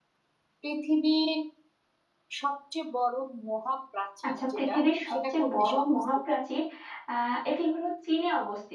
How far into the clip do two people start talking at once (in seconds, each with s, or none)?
4.2 s